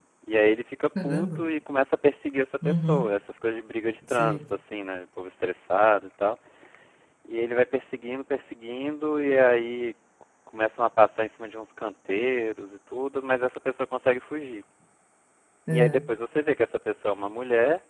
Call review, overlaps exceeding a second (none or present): none